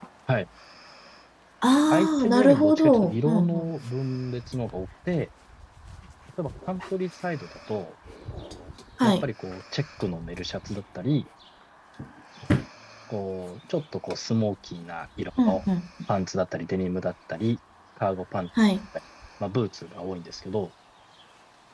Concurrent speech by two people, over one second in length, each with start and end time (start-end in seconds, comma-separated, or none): 1.9-3.7